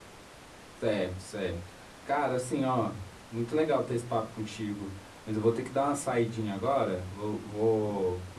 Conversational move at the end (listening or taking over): listening